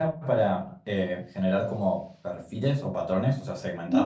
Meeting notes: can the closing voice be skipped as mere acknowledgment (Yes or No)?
No